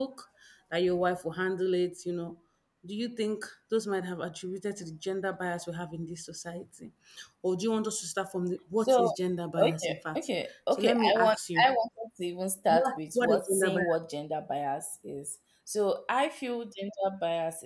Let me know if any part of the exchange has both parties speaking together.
Yes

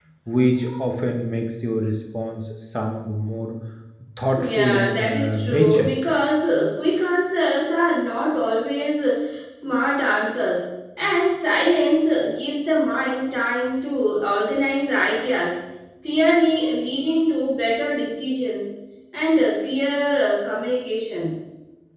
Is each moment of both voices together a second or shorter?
No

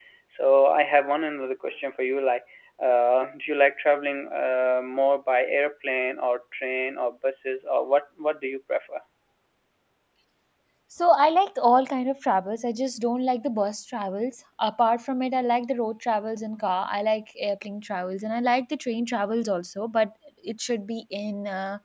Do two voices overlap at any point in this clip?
No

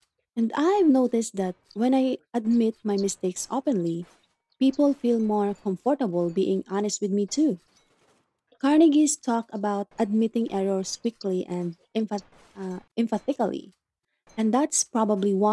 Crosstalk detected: No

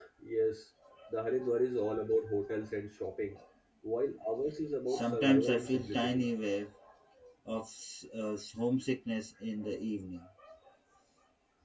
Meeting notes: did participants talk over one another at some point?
Yes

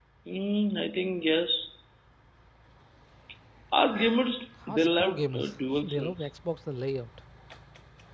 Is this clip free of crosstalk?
No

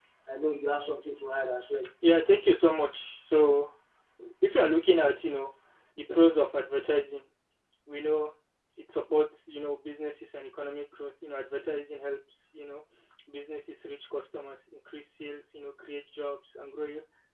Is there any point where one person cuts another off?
No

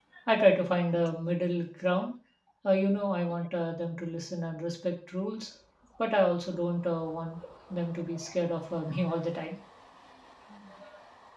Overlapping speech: No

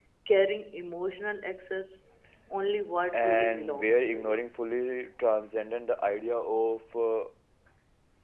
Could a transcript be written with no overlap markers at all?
No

